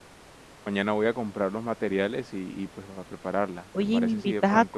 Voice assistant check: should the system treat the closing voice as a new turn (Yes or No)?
Yes